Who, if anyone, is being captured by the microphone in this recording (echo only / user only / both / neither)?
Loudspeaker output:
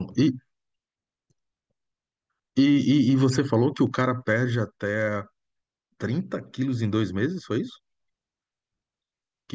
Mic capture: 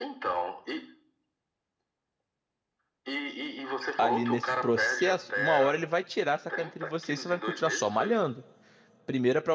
both